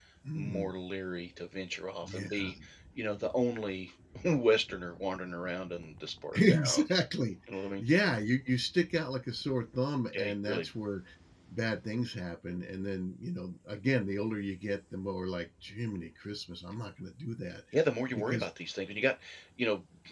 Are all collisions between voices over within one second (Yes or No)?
Yes